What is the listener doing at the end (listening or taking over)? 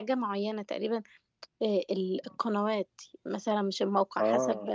listening